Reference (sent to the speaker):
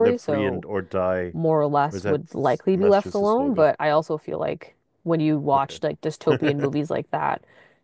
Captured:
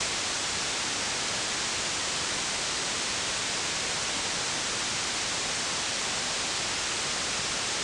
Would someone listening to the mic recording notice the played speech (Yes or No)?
No